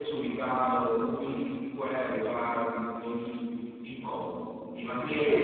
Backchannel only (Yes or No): Yes